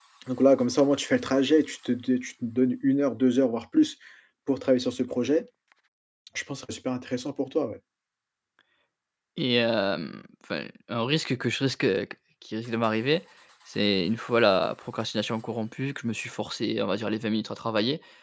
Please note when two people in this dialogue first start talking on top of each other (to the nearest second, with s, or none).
none